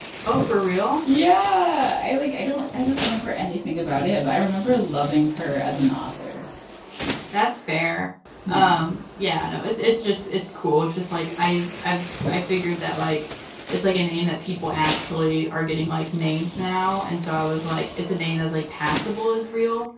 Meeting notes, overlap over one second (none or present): none